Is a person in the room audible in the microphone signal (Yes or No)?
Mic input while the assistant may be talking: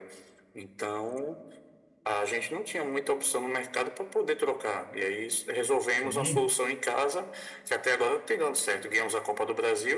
Yes